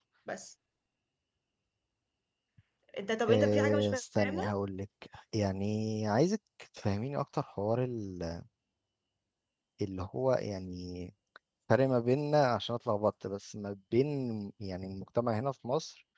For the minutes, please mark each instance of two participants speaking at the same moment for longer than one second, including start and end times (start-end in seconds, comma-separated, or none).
3.3-4.5